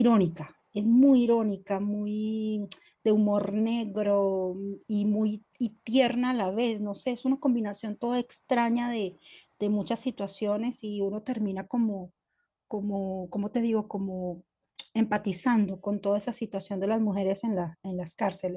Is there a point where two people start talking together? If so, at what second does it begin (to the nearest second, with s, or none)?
none